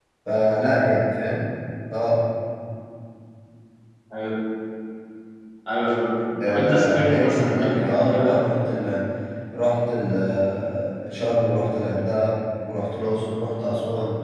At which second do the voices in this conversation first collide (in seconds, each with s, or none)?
6.4 s